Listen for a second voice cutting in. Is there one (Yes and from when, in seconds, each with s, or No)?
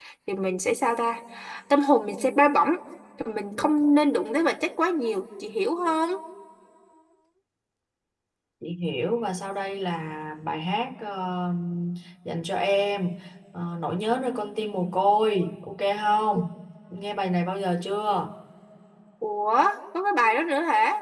No